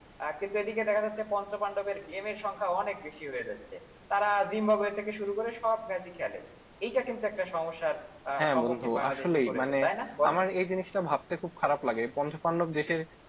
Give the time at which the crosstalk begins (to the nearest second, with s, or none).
8 s